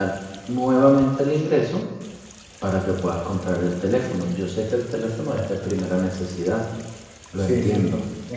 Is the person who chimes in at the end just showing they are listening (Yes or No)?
No